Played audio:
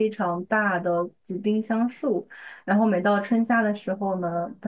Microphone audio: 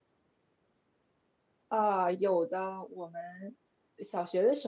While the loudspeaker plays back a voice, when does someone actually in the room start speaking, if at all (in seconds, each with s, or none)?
1.7 s